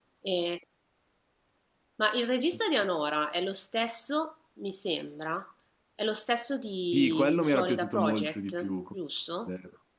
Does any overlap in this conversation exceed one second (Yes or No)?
Yes